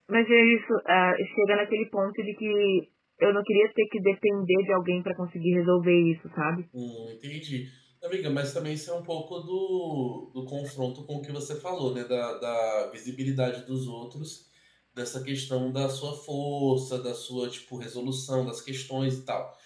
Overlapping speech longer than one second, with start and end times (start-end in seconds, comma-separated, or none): none